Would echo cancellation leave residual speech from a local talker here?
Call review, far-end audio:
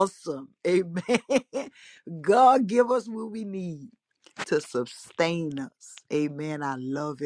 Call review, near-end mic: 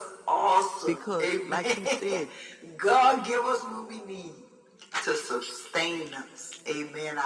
Yes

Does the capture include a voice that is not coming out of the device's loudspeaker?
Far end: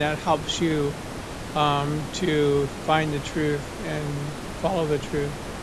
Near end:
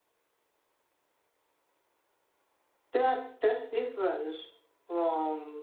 Yes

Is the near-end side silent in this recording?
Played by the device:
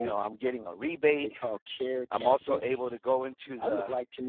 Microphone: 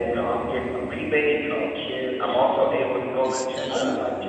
No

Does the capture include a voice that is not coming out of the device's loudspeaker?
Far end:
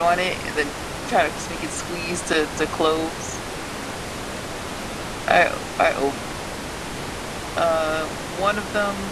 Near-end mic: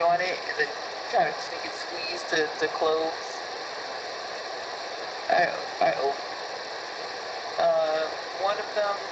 No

